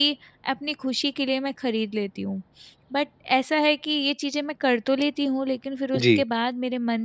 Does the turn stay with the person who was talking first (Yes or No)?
Yes